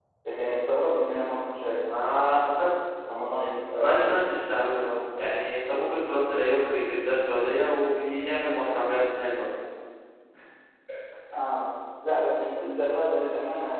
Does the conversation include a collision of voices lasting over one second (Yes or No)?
No